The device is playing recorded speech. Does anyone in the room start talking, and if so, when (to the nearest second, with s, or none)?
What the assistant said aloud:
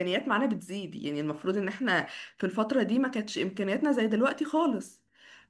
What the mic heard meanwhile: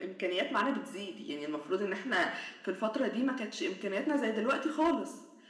none